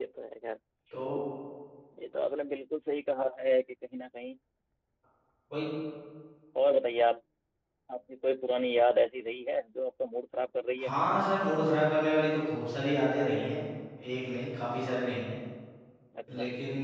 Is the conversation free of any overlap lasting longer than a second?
Yes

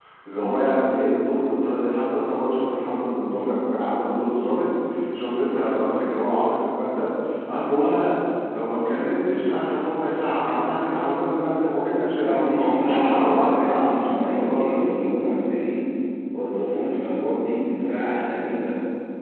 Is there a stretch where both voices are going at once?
Yes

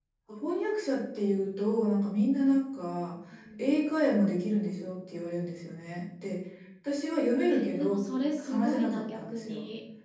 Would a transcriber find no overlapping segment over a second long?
No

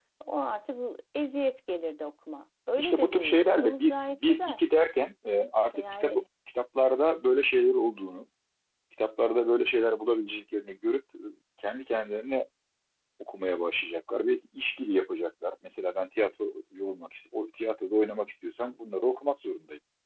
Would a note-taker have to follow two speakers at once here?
Yes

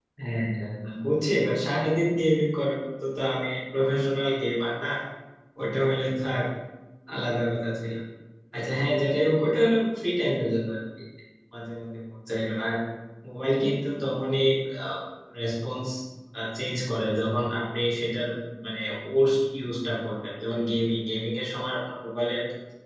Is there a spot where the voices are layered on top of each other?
No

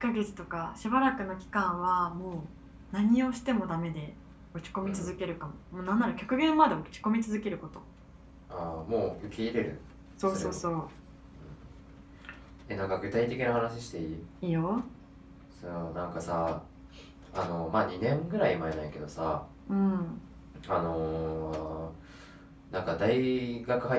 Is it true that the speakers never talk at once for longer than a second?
Yes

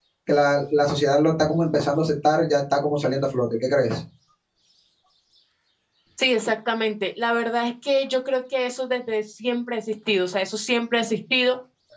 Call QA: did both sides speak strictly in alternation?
Yes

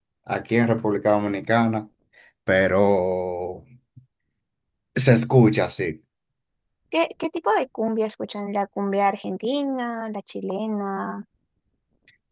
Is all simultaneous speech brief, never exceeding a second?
Yes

